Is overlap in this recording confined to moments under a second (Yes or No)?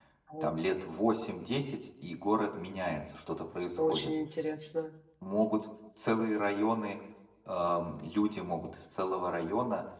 Yes